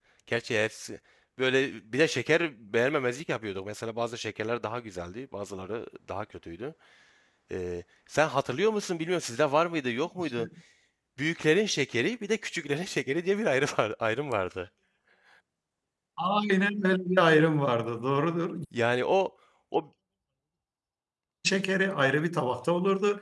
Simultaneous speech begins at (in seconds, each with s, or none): none